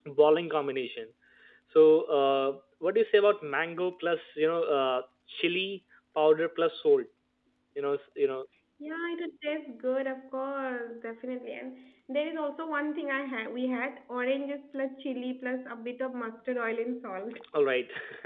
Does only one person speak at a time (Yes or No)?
Yes